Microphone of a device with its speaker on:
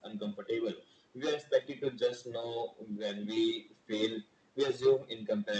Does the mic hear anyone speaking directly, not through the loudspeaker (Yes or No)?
No